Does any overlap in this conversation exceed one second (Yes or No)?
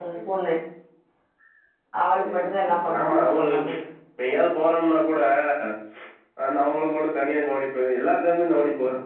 Yes